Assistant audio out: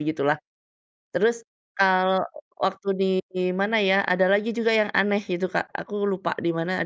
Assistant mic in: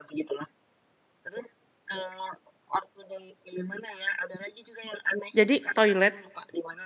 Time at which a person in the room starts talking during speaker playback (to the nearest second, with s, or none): 5 s